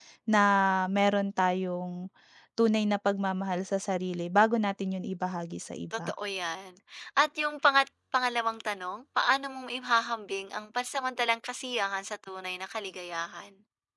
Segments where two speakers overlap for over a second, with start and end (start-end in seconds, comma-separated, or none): none